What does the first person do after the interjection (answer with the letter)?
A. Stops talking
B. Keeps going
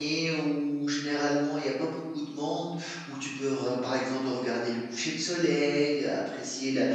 B